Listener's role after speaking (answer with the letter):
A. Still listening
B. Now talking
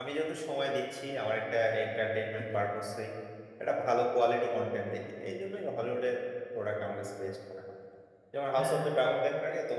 A